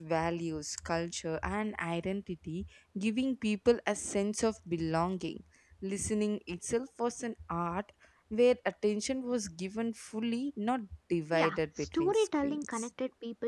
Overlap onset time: 11.3 s

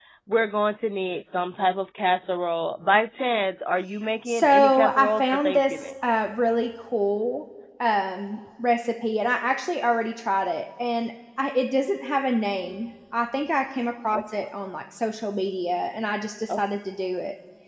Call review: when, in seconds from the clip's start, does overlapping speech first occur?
4.2 s

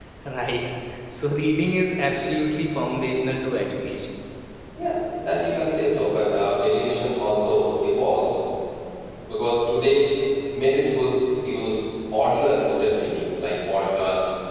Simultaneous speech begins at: none

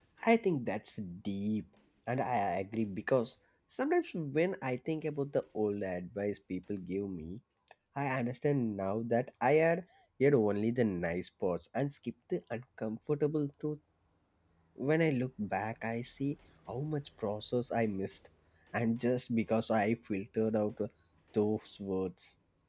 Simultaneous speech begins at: none

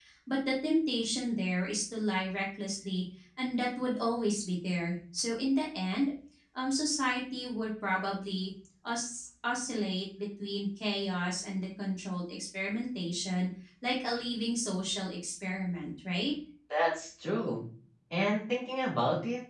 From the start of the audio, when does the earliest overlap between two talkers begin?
none

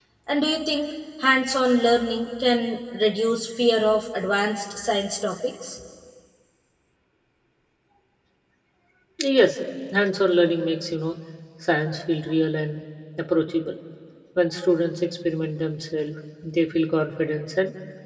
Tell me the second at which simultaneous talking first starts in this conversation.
none

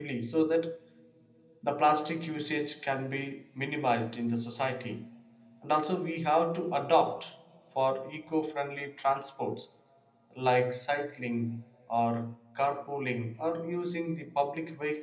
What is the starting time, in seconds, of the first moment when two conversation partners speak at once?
none

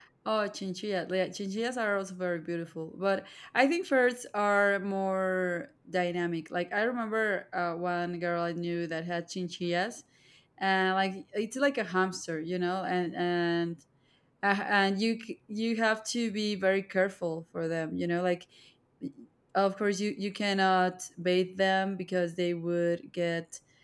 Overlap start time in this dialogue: none

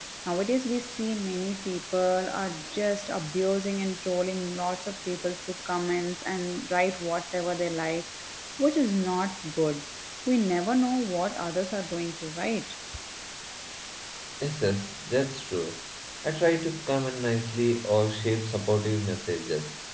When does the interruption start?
none

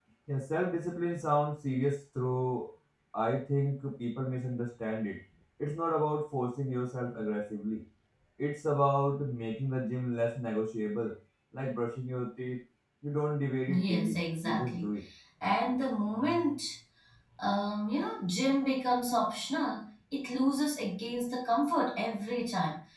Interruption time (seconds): 13.7 s

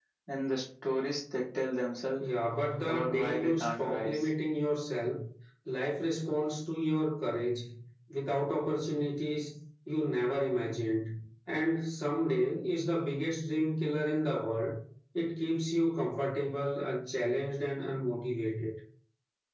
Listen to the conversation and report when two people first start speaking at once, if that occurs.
2.9 s

